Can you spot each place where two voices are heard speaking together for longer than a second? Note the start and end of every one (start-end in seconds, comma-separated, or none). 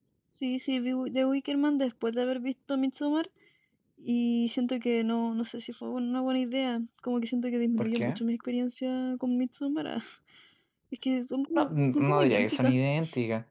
11.6-12.8